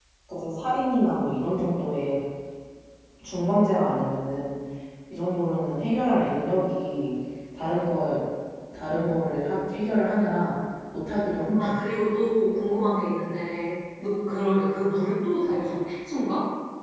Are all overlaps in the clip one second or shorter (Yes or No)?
Yes